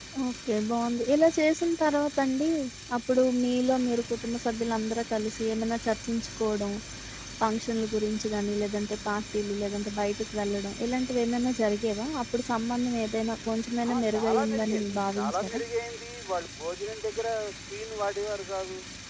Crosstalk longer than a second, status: present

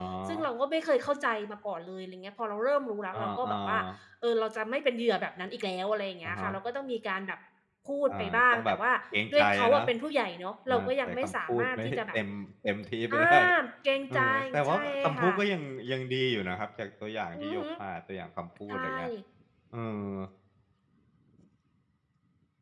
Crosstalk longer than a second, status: present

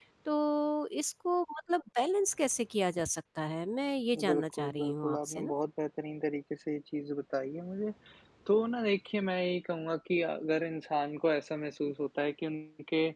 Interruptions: present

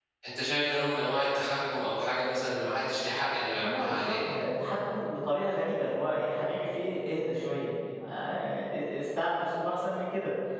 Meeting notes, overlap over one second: none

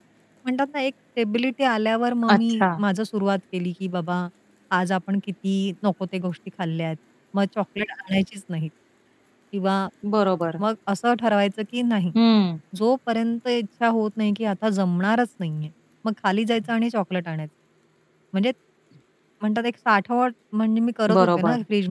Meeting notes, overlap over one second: none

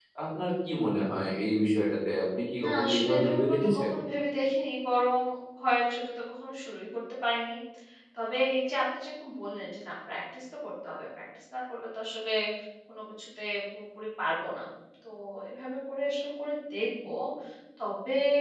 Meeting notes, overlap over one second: present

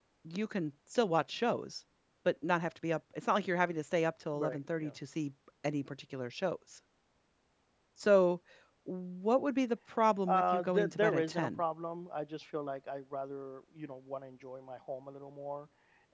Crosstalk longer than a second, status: present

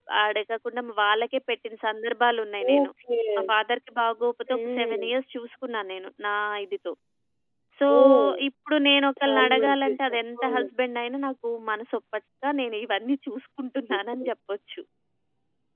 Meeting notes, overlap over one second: present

